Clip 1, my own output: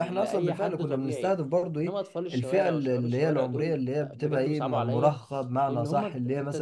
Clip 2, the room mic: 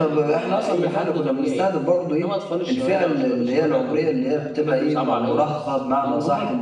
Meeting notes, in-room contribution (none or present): none